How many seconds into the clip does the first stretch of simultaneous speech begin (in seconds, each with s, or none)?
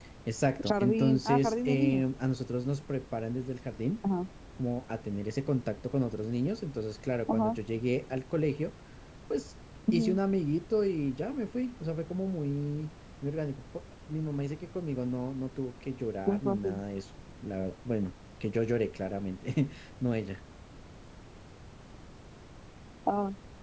0.7 s